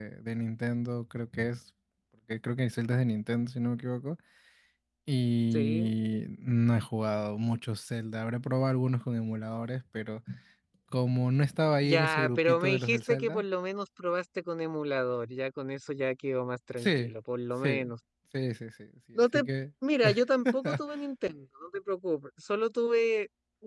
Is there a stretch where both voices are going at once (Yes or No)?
Yes